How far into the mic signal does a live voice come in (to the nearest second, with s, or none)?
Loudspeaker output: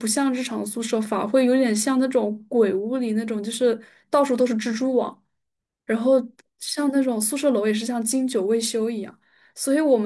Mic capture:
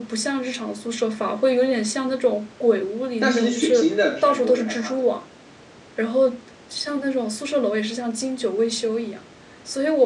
3 s